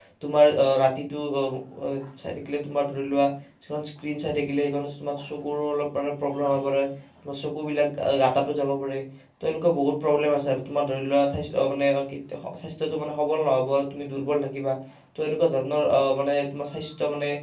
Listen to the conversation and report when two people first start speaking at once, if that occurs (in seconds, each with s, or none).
none